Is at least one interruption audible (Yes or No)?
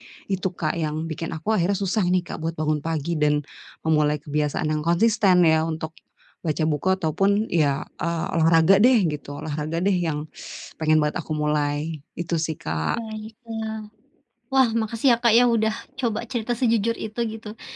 No